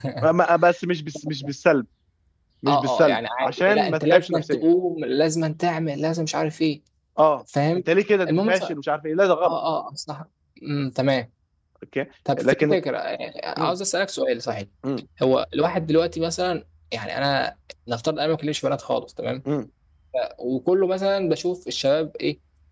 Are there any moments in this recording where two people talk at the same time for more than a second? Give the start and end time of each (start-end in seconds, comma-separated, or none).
2.7-4.6